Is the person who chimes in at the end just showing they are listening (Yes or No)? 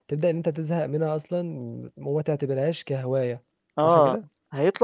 No